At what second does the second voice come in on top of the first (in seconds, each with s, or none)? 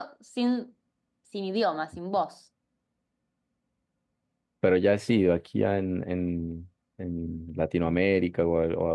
none